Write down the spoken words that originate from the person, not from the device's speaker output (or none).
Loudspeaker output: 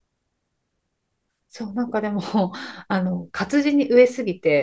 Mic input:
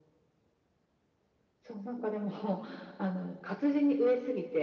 none